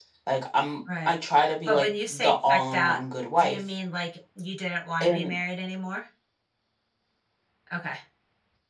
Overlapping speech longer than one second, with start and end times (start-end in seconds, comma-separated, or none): 1.6-3.0